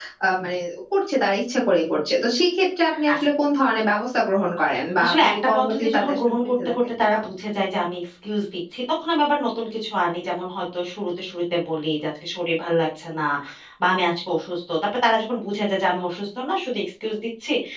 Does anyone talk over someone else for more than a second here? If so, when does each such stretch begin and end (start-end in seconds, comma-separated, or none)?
5.0-7.2